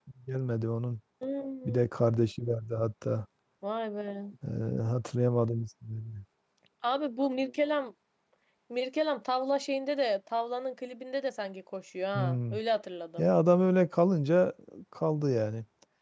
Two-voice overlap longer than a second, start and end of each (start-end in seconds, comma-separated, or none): none